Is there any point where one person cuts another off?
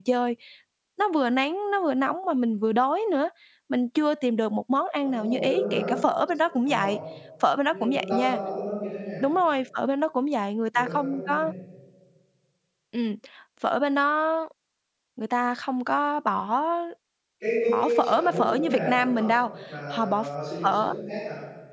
Yes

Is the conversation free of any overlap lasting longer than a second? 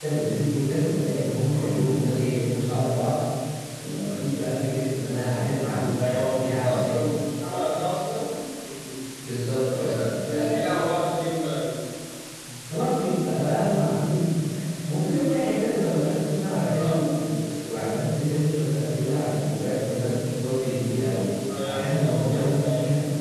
No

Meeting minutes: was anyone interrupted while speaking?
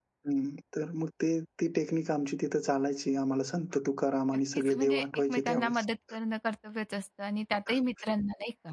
Yes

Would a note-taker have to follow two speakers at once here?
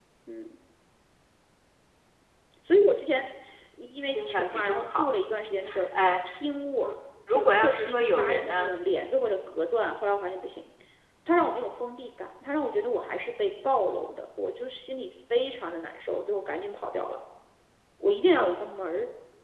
Yes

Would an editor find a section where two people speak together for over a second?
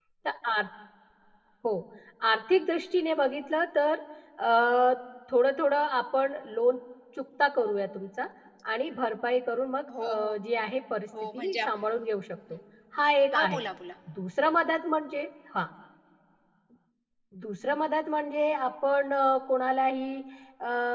No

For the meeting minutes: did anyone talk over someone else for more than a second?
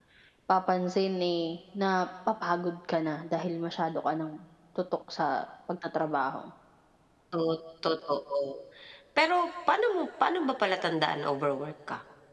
No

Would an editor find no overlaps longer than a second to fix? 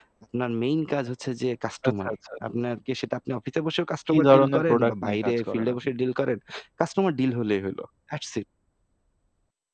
No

